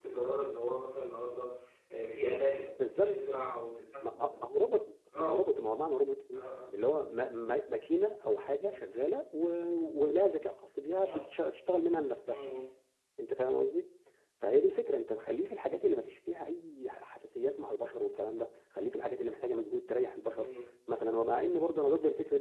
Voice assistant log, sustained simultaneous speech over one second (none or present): none